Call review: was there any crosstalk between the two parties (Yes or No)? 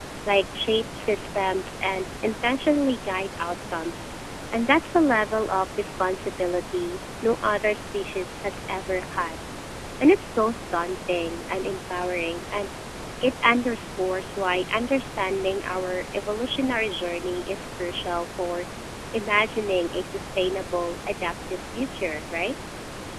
No